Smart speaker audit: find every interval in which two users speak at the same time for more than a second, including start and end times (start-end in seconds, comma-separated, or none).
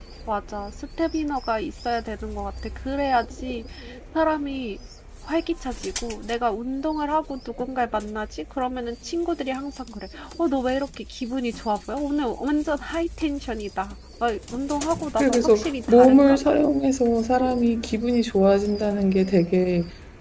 15.2-16.5